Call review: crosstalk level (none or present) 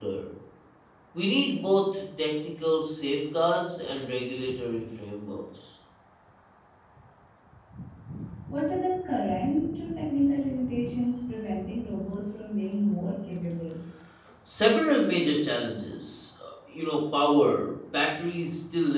none